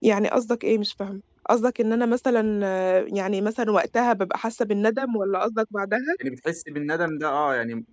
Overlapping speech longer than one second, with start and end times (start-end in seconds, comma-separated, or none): none